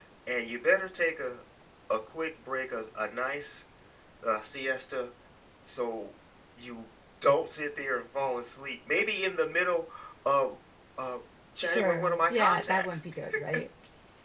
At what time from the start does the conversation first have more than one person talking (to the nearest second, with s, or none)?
12 s